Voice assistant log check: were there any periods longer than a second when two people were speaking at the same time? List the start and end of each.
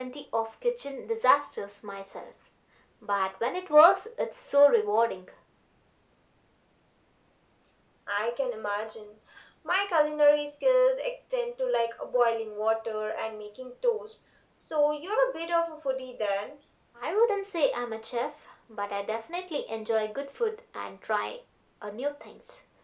none

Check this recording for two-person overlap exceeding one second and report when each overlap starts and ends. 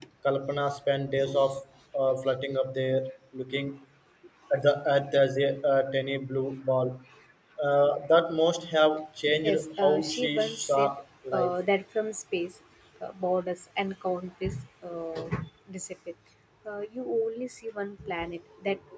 9.4-10.9

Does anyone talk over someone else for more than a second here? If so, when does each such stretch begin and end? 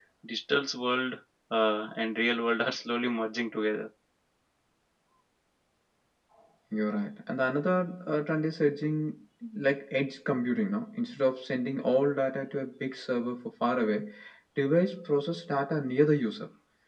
none

